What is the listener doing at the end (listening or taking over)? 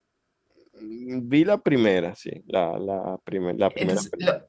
taking over